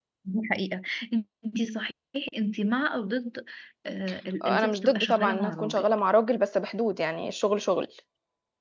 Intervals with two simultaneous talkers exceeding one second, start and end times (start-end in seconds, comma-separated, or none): 4.4-5.8